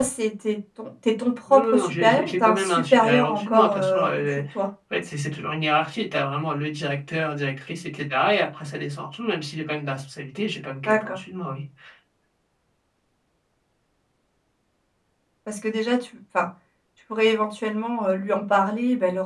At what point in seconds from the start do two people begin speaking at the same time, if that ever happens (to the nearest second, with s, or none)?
2 s